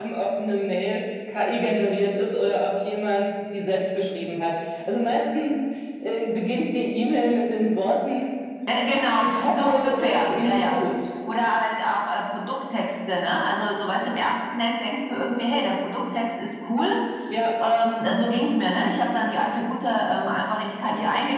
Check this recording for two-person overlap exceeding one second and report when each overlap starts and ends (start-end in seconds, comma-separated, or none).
9.2-10.8